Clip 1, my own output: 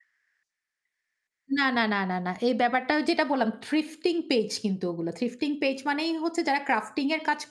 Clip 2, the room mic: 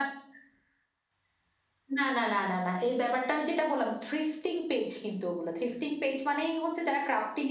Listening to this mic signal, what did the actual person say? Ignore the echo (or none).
none